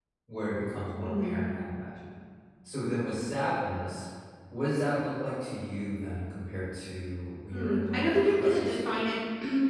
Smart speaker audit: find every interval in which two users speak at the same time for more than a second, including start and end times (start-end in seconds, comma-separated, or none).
7.5-9.0